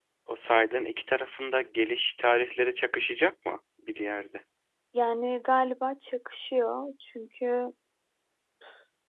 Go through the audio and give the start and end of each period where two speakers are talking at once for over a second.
none

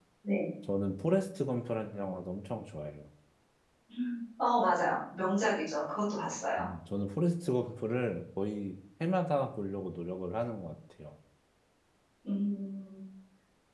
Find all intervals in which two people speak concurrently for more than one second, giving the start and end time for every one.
none

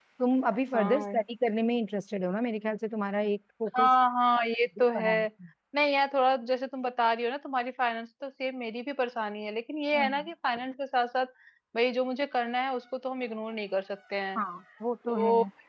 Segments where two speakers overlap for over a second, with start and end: none

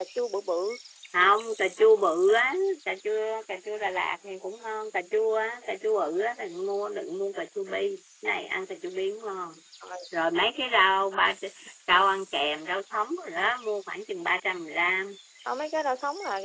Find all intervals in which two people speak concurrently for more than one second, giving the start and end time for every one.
none

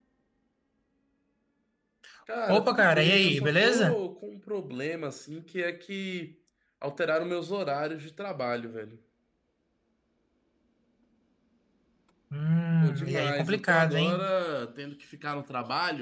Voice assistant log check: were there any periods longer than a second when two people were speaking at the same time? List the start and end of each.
2.5-4.0, 12.8-14.3

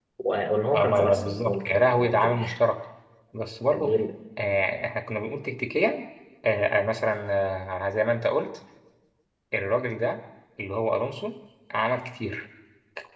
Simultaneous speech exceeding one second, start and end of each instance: 0.8-2.4

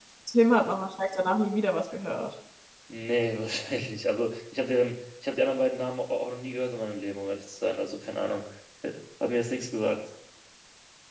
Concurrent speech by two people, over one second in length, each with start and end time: none

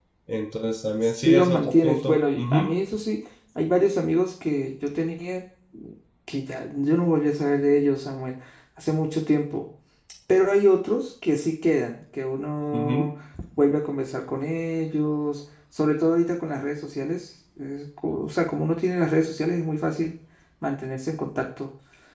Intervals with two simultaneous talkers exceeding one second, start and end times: 1.0-2.8

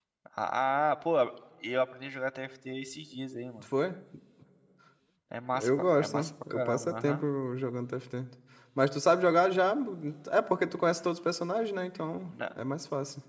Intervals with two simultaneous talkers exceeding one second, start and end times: 5.6-7.2

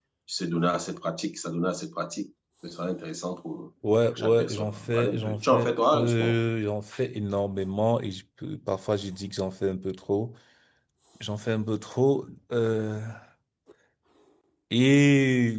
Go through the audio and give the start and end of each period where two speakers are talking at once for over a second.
4.2-6.3

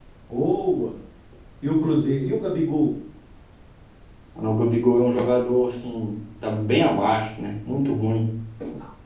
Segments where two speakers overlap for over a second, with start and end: none

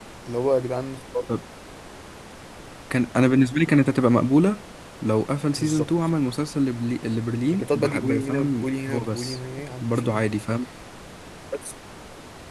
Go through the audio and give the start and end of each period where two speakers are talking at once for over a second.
7.5-9.4

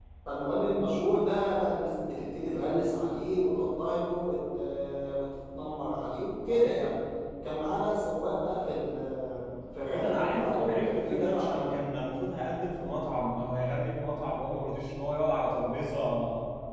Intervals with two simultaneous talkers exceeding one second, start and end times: 9.9-11.7

